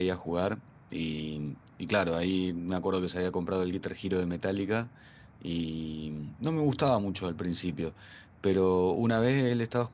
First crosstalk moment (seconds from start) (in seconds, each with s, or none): none